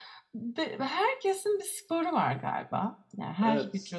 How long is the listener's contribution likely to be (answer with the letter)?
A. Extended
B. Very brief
B